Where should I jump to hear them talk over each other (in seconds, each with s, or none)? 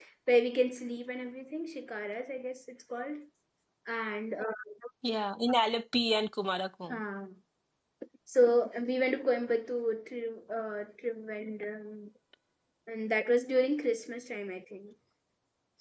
none